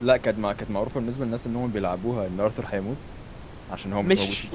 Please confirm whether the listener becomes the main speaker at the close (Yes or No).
Yes